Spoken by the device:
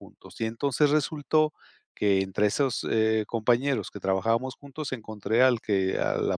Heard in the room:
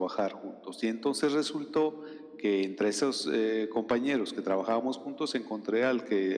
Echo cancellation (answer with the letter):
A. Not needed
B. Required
B